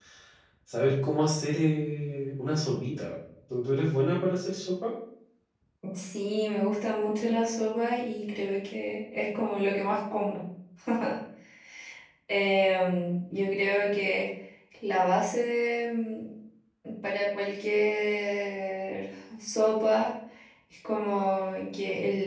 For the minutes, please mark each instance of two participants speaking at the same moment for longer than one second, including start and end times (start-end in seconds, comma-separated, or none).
none